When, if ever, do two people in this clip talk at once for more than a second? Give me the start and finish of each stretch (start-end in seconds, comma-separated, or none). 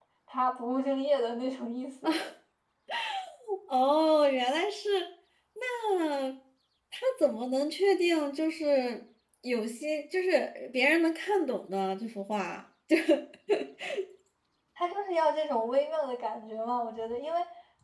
none